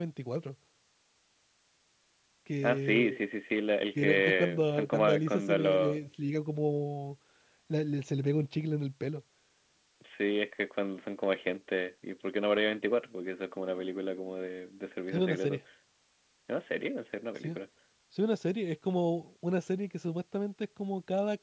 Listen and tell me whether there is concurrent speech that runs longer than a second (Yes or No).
Yes